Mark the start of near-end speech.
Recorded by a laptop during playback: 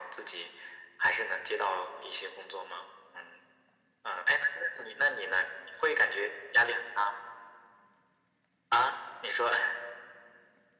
none

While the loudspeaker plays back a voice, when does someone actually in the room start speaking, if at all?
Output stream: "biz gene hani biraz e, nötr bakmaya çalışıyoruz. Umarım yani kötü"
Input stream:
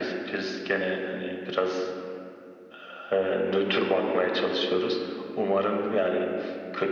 none

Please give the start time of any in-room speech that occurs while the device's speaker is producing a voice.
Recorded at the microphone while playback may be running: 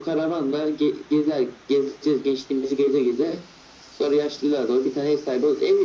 none

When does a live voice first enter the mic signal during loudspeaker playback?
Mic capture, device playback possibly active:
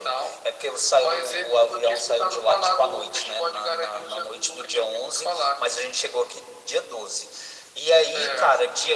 none

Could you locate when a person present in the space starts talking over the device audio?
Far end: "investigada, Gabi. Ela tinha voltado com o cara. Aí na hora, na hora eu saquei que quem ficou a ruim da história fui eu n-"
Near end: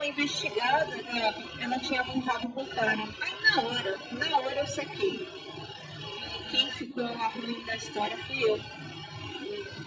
none

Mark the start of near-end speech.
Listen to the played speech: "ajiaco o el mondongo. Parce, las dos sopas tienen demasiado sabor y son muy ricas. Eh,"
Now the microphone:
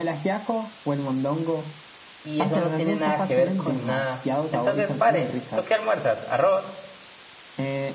2.2 s

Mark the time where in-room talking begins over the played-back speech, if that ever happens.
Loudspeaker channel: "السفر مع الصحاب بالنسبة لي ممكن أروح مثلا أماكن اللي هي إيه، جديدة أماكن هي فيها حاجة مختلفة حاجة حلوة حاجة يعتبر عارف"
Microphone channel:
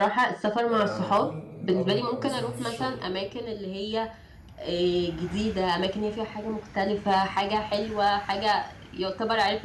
0.6 s

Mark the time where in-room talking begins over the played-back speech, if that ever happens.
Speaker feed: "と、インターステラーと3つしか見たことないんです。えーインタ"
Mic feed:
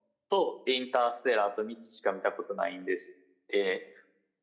none

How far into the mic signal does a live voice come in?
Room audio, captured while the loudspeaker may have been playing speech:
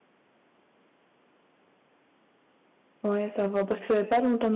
3.0 s

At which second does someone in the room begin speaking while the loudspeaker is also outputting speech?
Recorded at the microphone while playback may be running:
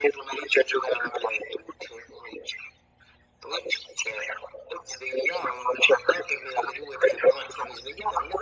none

